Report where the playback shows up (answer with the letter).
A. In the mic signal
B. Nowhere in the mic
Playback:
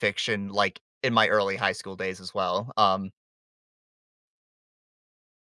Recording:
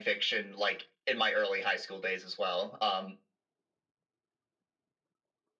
A